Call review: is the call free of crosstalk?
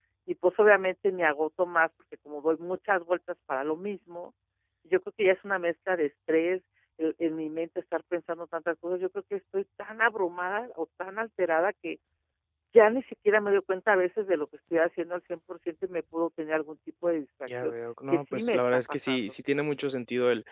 No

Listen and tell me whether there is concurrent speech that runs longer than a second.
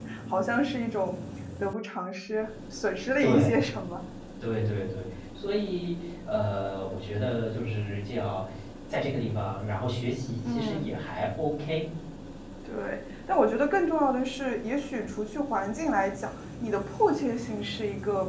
No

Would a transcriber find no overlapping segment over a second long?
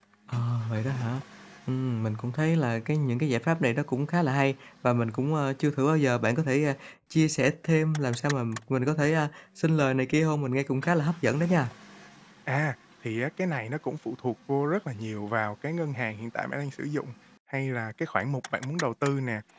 Yes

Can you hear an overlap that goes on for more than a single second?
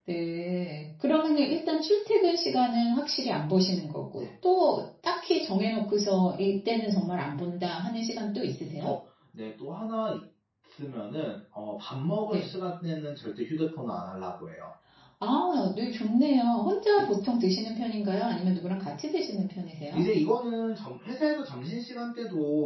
No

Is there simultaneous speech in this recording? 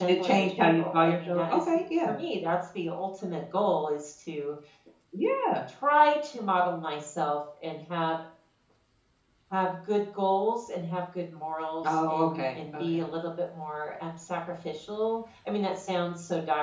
Yes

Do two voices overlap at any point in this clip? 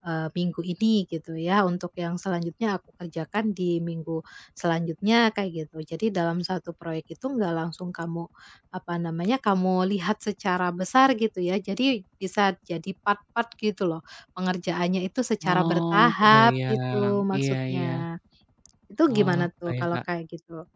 Yes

